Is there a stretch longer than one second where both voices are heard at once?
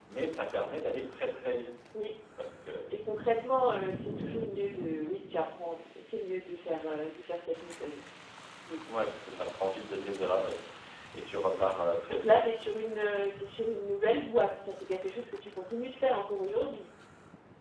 No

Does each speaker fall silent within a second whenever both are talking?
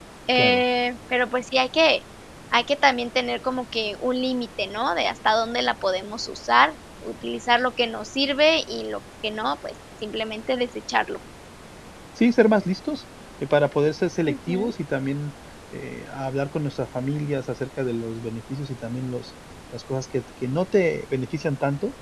Yes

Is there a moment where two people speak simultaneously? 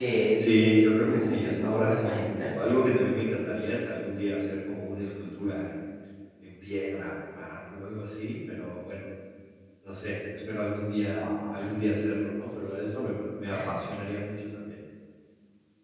Yes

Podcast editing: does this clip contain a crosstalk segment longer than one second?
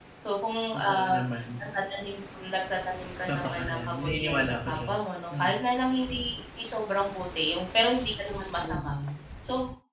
Yes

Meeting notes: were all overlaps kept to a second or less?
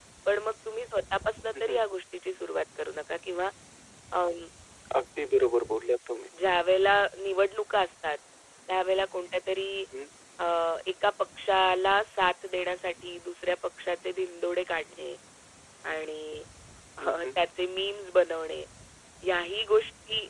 Yes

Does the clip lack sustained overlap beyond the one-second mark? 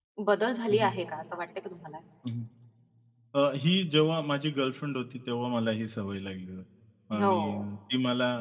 Yes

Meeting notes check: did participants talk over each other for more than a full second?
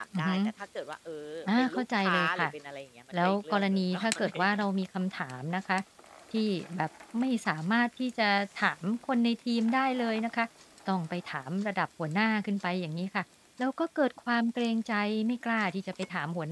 Yes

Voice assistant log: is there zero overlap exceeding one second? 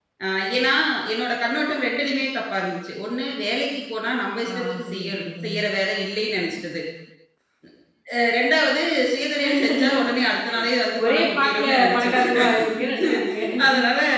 No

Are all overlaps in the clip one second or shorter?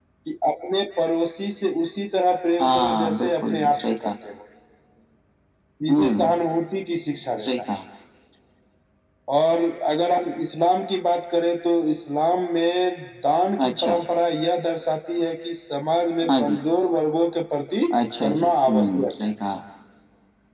No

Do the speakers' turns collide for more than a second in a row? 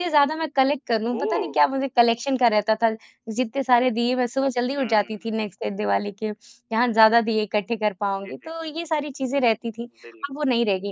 No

